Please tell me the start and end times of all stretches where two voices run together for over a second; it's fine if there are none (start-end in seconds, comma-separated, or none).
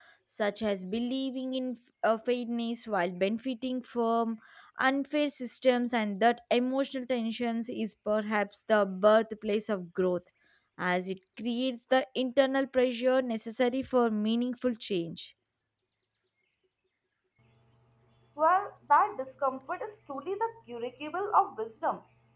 none